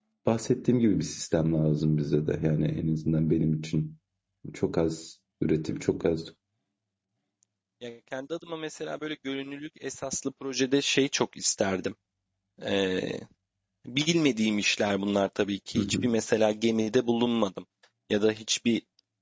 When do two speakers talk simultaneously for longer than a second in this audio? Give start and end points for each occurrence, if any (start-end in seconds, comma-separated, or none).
none